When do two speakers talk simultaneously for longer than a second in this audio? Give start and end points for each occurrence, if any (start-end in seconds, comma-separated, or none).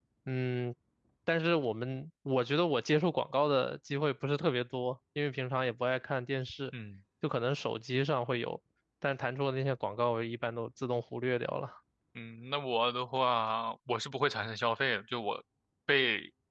none